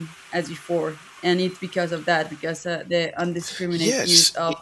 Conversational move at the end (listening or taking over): taking over